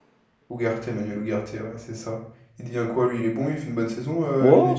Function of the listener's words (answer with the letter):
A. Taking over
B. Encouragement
A